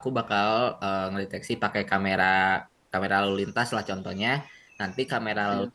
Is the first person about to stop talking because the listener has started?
No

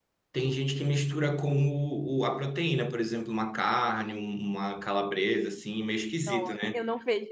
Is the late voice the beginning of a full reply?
Yes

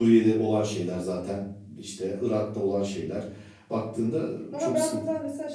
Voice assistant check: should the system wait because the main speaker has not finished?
No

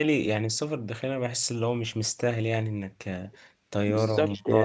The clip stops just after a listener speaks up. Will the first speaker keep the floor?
No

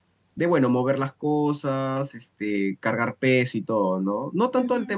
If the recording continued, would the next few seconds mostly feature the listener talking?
Yes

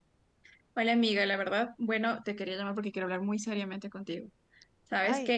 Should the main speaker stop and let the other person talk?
No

